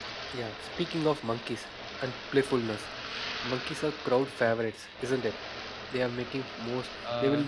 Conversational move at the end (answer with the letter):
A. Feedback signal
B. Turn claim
A